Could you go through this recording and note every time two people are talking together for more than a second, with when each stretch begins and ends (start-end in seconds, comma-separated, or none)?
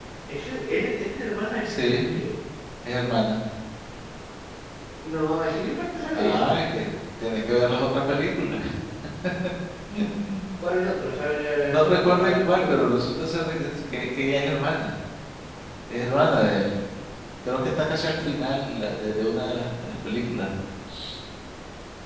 11.6-12.8